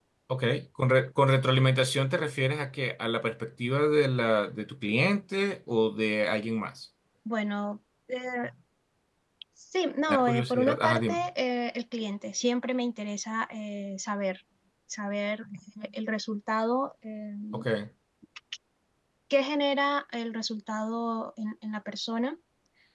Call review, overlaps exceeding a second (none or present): present